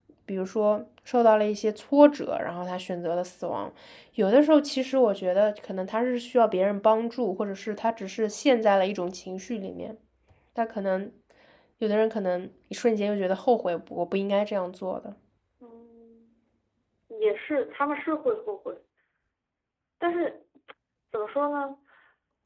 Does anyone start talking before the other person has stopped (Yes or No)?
No